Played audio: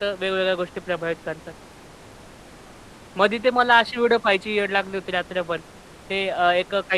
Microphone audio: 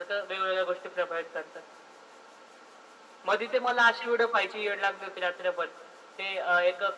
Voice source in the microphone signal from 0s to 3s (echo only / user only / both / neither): echo only